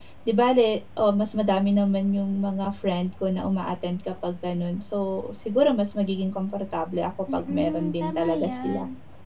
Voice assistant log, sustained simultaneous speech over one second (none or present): present